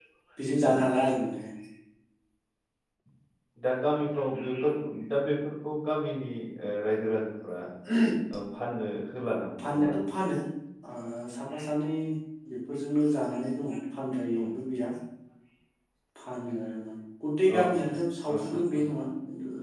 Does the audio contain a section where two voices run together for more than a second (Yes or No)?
No